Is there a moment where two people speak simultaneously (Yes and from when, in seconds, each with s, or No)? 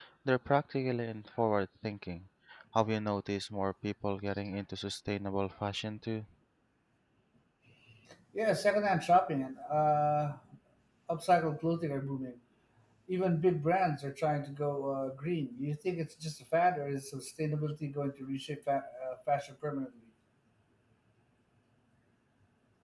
No